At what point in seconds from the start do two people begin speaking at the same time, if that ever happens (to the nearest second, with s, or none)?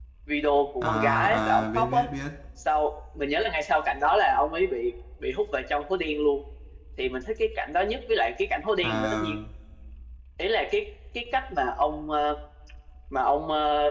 1 s